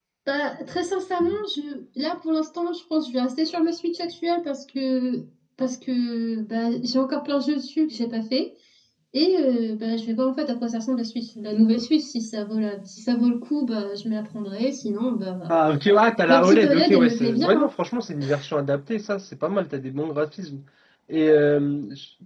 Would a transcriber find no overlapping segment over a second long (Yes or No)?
No